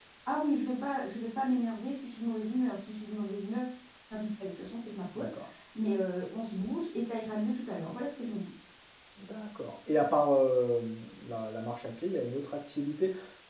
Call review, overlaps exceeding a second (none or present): none